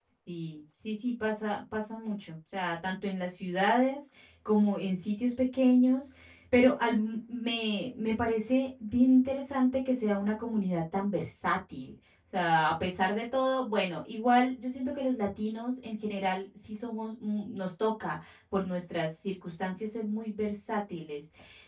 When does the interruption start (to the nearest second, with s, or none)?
none